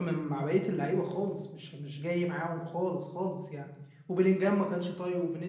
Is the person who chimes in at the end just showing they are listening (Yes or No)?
Yes